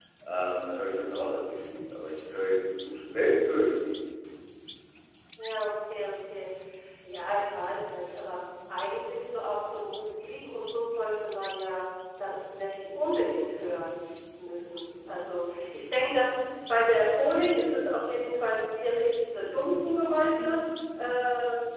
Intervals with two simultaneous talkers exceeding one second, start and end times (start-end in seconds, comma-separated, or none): none